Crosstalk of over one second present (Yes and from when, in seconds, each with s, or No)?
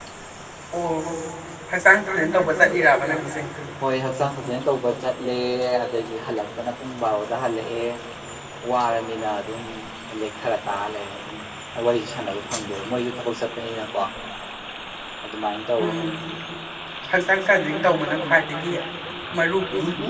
No